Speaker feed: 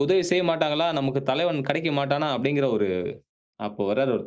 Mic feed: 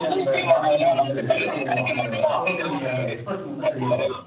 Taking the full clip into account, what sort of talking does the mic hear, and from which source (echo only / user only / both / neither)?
both